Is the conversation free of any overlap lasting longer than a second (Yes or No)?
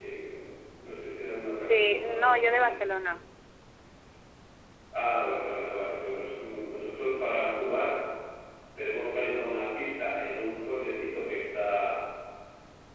No